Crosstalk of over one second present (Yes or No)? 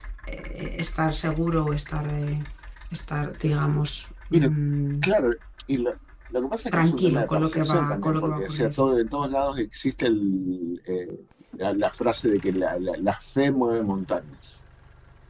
Yes